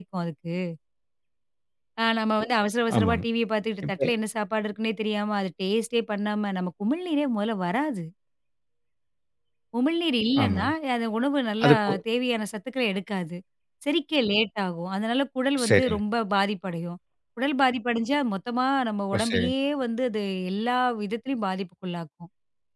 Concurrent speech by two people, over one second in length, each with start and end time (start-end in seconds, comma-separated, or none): none